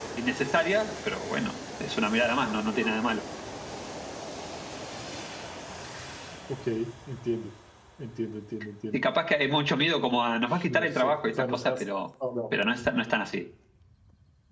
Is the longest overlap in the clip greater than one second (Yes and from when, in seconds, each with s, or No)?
Yes, from 10.5 s